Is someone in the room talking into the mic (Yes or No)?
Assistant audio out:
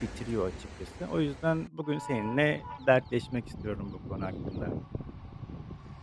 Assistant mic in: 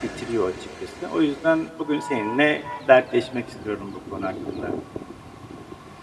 No